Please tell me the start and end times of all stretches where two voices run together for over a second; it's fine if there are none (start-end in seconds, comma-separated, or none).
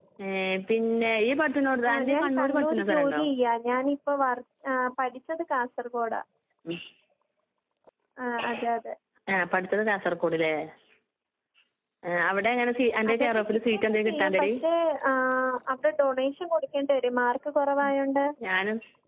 1.9-3.2, 13.1-14.5